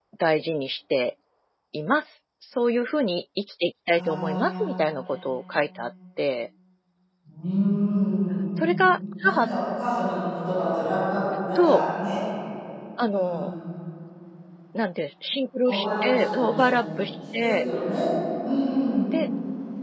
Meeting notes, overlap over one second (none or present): present